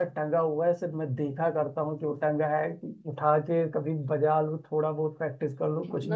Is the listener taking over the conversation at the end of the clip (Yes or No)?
Yes